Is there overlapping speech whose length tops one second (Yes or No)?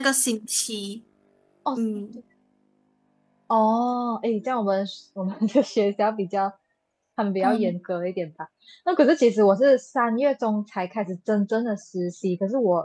No